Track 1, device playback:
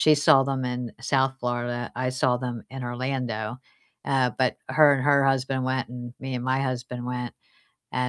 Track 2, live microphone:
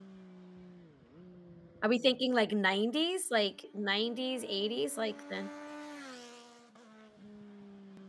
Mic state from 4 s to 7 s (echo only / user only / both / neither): user only